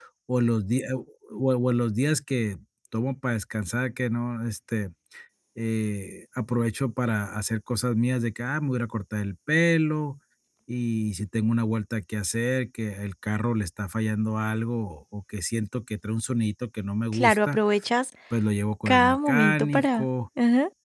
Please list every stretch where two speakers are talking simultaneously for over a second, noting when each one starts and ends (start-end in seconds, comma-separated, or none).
18.9-20.1